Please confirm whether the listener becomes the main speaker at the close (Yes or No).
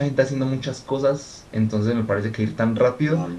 No